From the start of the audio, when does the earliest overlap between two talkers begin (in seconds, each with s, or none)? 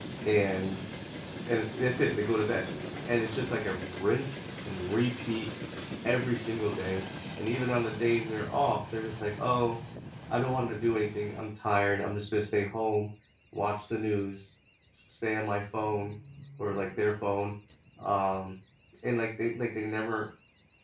none